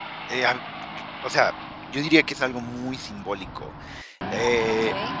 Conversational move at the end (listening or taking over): taking over